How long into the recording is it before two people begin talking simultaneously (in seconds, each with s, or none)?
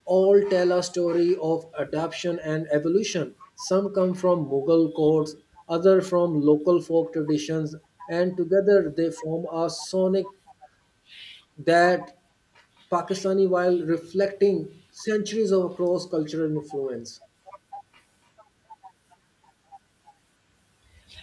none